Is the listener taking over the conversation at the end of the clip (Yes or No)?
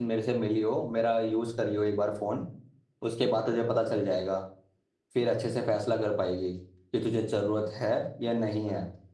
No